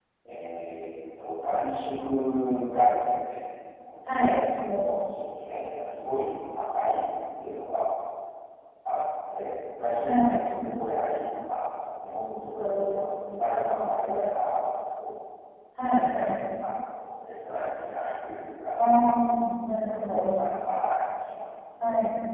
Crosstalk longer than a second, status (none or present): none